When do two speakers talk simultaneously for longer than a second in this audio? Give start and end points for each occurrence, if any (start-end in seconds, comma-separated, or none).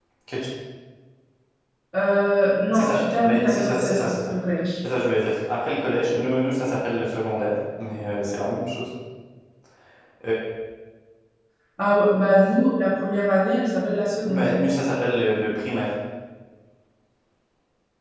2.7-4.3